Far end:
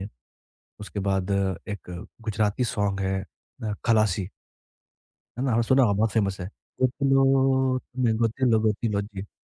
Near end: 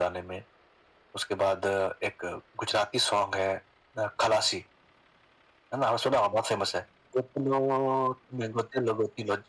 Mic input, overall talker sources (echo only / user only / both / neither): echo only